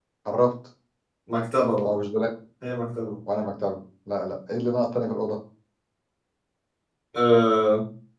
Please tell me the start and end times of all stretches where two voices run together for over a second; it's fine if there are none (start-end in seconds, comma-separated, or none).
none